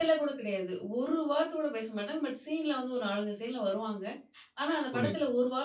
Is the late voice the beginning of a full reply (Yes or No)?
No